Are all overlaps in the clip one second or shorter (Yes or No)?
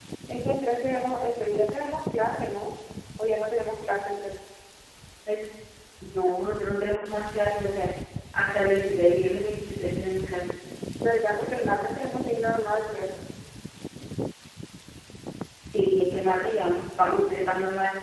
Yes